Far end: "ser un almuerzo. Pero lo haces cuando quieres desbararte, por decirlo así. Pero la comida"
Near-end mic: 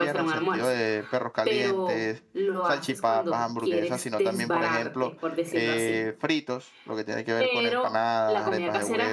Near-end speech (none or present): present